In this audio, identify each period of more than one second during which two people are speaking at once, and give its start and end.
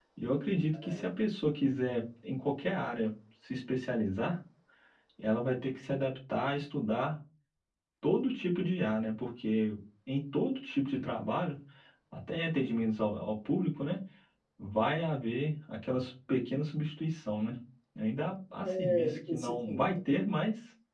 18.6-19.9

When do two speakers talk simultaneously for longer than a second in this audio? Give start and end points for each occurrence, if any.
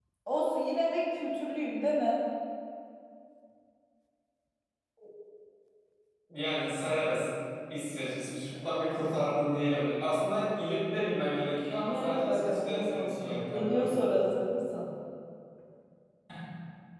11.8-14.0

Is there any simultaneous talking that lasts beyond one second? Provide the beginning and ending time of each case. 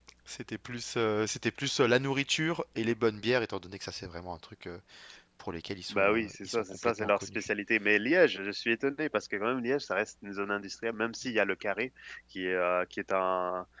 5.9-7.5

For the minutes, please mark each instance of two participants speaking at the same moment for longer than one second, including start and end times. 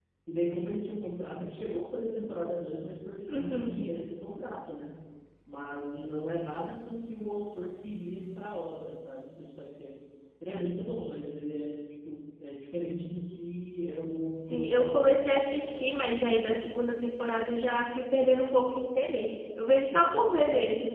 14.5-16.0

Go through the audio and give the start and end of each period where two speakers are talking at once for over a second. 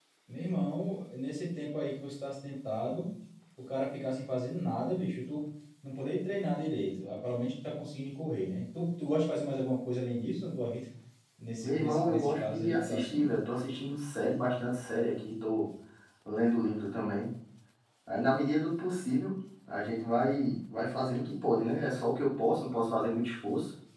11.6-13.2

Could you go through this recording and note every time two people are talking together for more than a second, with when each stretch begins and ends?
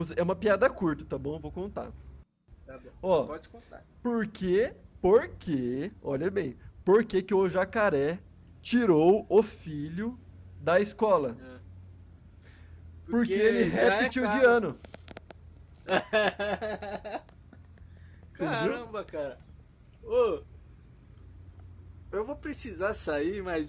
13.2-14.5

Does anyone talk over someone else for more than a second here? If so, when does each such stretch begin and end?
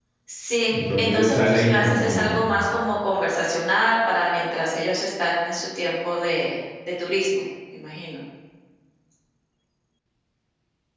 0.7-2.4

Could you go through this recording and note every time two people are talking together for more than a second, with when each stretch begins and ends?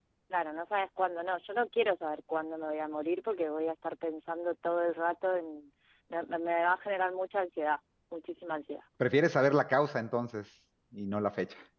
none

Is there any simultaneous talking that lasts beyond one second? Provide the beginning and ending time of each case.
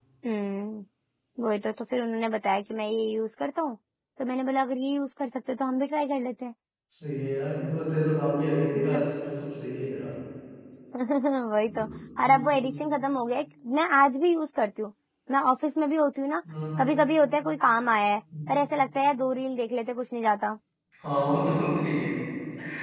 none

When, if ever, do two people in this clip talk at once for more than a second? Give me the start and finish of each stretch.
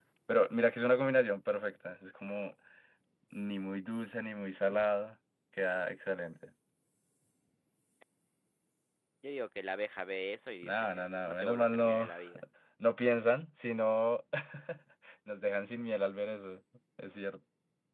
10.6-12.1

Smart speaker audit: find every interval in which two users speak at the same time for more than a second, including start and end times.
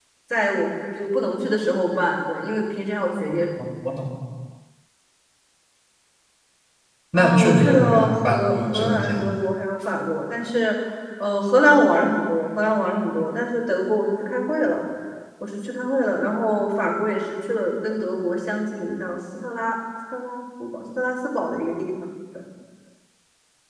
7.1-9.2

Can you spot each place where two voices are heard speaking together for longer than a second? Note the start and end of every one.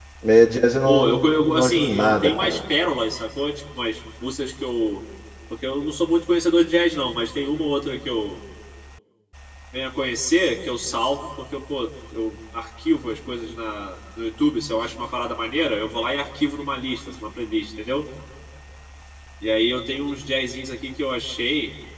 0.8-2.6

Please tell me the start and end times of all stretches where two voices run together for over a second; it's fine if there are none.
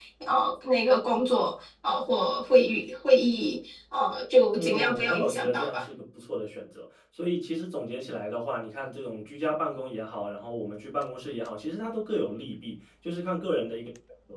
4.5-5.8

